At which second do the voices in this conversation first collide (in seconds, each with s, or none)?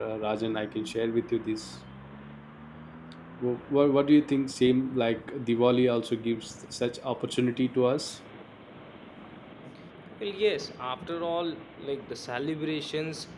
none